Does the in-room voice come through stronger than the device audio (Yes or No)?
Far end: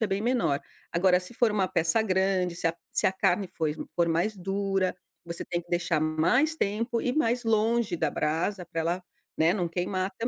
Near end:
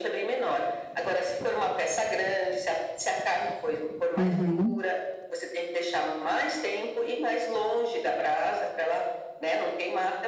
Yes